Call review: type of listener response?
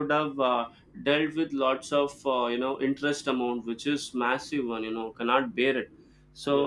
listening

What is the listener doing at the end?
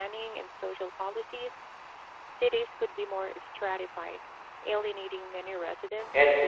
taking over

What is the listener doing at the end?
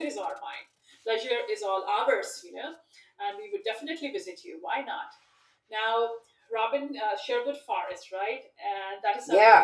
taking over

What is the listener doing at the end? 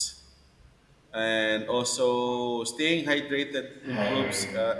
listening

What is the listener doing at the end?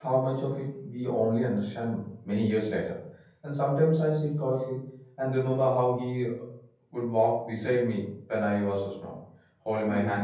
listening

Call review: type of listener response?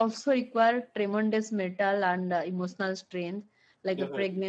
listening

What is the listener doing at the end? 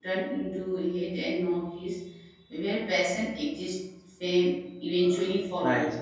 taking over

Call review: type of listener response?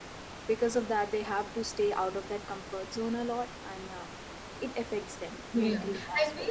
taking over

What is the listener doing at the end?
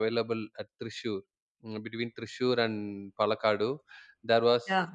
listening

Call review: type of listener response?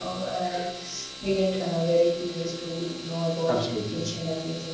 listening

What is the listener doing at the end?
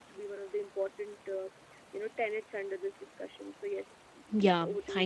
taking over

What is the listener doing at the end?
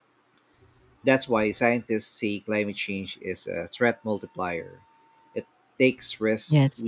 listening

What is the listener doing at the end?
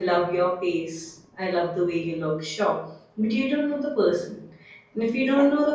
listening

